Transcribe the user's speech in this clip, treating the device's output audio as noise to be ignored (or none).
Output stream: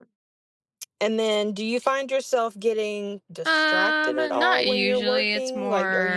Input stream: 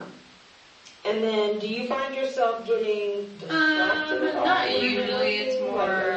Mm-hmm.